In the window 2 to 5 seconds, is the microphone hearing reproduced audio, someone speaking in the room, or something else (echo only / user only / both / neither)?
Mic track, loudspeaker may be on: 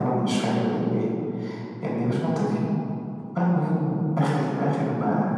echo only